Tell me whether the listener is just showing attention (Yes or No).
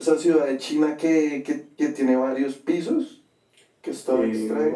No